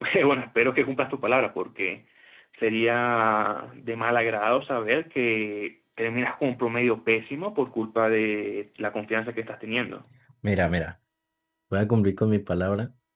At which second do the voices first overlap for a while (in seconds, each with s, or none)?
none